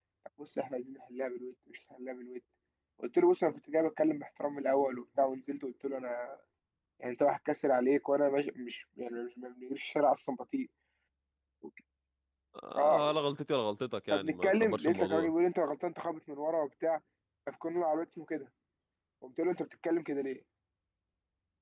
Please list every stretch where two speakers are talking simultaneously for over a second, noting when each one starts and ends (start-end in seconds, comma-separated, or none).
14.1-15.3